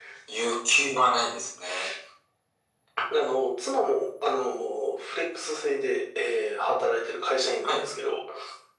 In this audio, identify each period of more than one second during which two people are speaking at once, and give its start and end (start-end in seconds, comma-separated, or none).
none